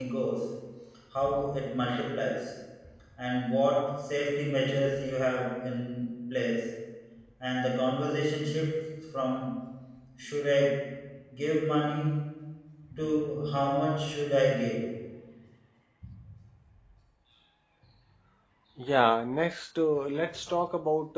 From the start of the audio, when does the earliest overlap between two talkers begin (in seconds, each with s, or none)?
none